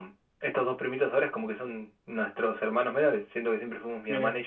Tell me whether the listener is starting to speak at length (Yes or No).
No